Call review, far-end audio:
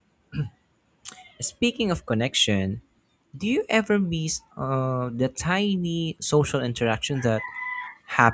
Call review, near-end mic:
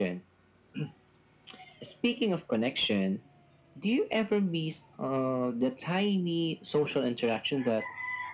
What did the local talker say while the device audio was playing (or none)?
none